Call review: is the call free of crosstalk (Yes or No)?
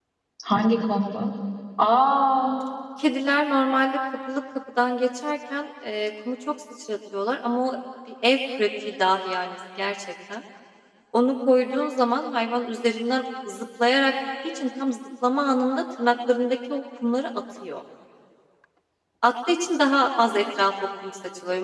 Yes